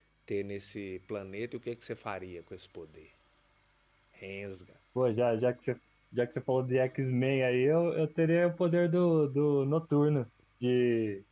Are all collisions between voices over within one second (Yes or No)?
Yes